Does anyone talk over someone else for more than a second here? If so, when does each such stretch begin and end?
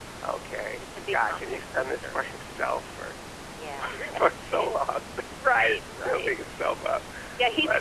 0.8-2.2

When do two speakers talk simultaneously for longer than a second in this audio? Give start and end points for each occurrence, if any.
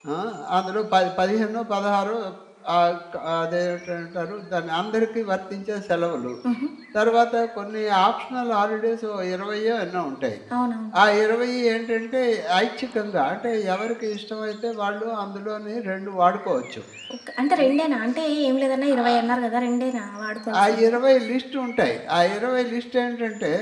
none

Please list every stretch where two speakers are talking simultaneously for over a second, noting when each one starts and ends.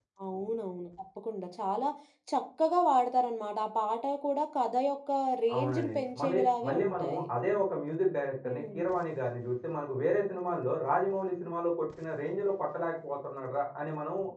5.5-7.2

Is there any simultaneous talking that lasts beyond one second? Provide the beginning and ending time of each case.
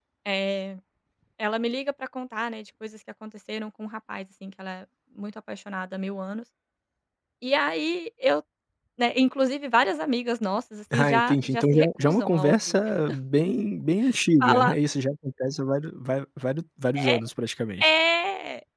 10.9-12.8

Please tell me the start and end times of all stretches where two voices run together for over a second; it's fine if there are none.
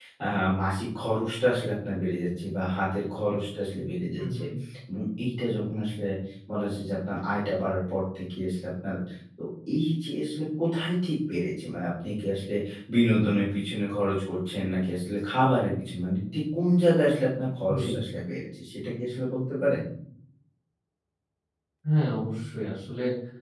none

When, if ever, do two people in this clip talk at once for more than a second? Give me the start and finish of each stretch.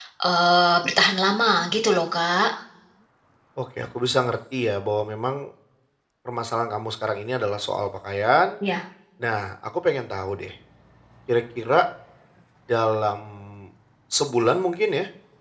none

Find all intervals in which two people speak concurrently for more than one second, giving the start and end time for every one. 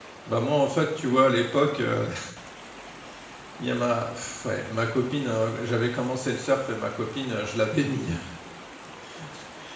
none

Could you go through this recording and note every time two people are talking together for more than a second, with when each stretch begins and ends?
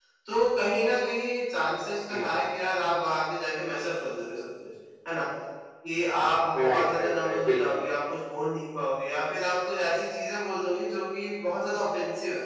6.5-7.8

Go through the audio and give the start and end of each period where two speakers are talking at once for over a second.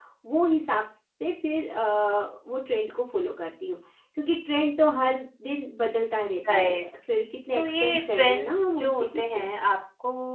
7.5-9.5

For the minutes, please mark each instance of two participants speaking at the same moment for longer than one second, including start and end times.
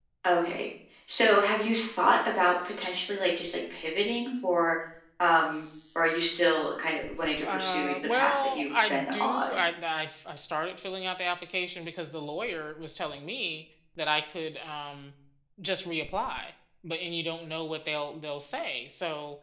7.4-9.6

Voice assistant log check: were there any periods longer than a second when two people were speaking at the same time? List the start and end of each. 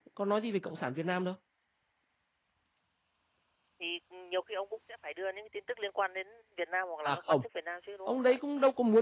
none

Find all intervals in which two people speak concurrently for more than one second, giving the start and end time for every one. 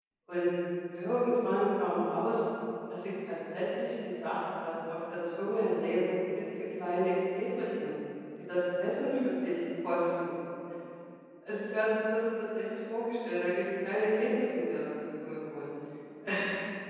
none

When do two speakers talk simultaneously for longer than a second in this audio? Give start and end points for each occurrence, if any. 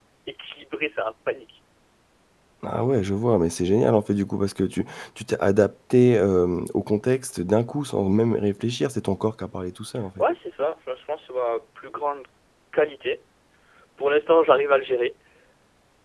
none

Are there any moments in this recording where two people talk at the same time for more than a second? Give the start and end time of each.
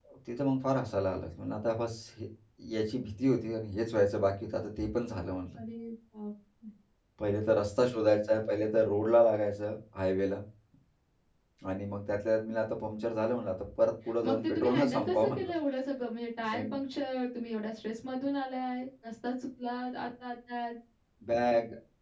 14.2-15.5

